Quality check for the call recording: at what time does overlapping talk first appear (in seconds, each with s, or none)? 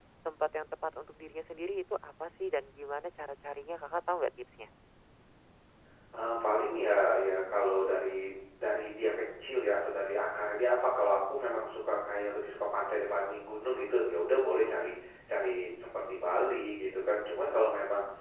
none